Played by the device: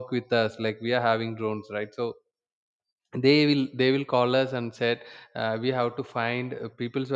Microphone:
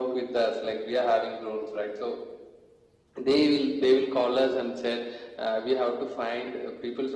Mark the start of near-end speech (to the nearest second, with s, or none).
none